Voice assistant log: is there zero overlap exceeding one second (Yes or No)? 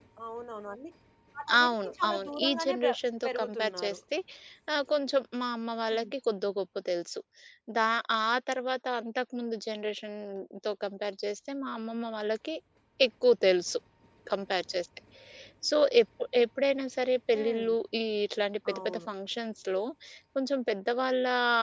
No